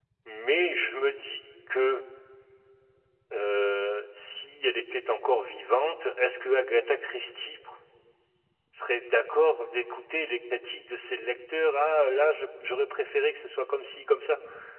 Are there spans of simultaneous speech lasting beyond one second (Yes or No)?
No